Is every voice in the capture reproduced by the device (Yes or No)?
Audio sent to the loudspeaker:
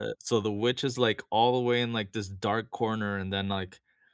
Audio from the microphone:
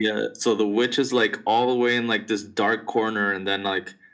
Yes